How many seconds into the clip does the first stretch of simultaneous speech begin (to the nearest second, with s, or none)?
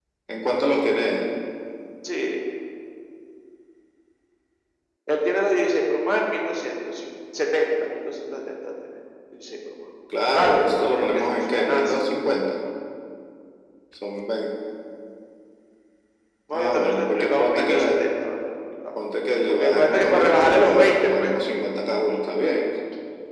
10 s